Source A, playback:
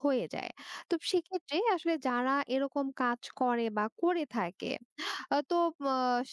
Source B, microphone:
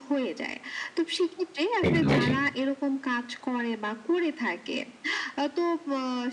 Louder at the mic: user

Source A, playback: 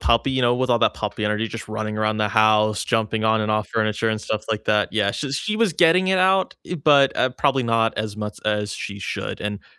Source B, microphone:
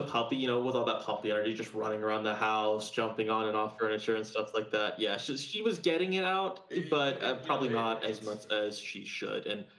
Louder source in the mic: echo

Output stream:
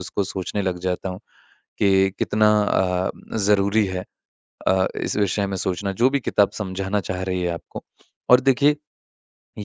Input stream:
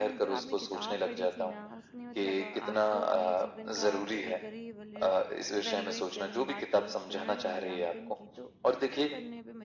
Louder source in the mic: echo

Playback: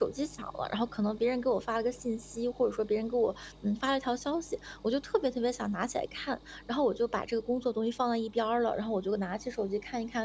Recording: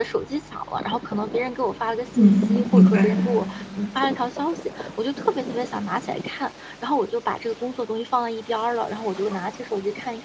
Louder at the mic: user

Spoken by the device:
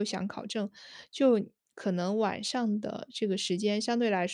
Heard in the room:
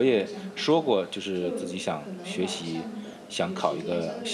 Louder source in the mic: user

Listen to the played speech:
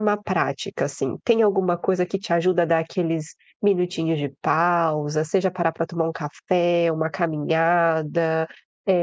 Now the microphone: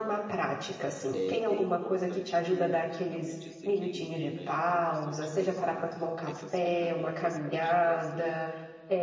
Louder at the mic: echo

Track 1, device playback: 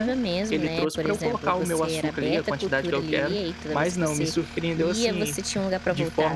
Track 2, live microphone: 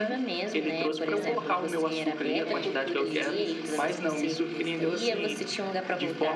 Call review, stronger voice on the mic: echo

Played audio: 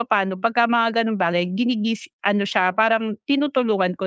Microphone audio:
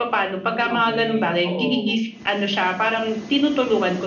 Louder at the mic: echo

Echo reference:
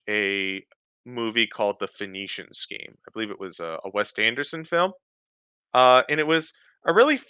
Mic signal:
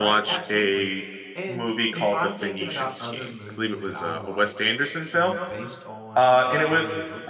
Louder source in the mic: echo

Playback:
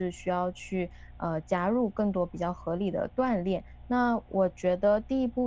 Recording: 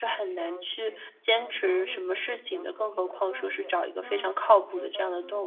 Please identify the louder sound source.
user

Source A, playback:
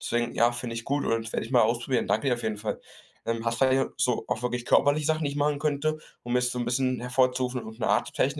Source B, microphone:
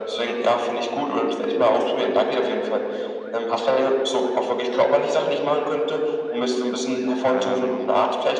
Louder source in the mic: echo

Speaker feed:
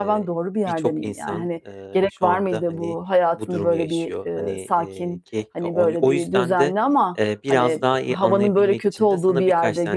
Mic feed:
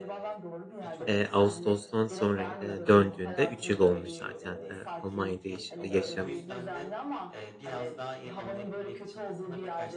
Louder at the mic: user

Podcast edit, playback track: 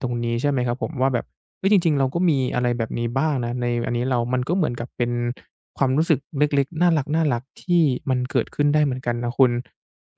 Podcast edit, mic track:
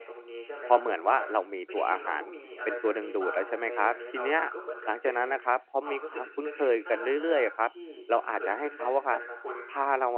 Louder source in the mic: user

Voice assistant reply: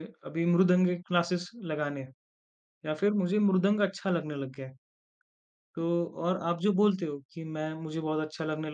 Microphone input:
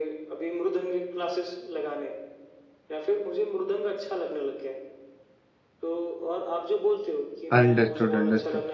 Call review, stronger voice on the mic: user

